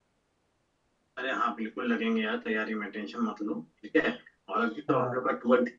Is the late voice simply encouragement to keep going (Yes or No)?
Yes